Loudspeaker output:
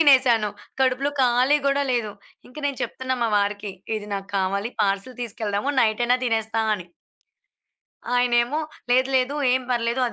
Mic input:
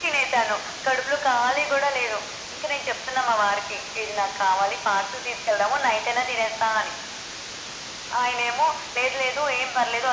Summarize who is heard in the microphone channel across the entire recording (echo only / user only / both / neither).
echo only